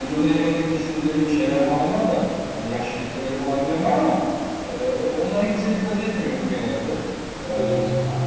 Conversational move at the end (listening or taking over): listening